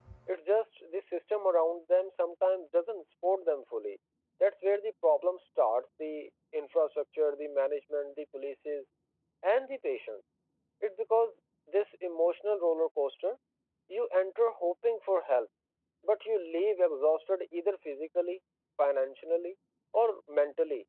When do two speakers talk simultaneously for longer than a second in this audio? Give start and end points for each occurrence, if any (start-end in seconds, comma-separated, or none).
none